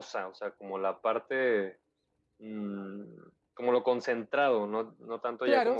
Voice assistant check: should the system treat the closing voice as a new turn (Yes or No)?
Yes